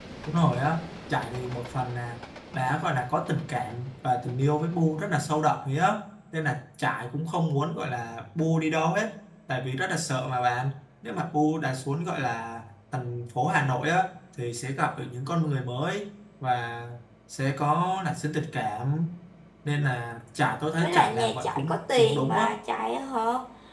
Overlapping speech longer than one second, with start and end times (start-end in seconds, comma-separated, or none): 20.8-22.4